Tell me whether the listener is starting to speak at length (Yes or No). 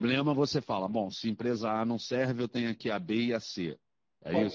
Yes